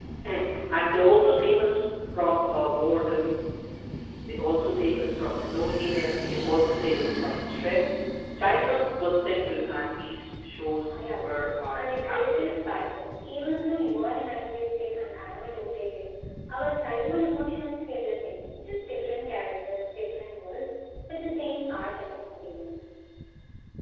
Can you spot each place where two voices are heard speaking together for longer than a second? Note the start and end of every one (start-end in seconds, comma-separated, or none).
10.9-12.8